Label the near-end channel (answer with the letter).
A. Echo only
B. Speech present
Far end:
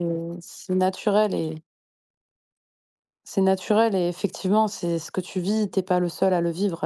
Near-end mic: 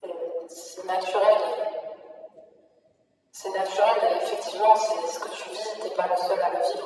A